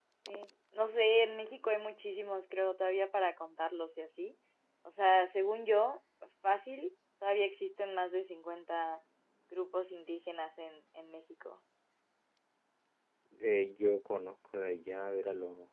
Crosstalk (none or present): none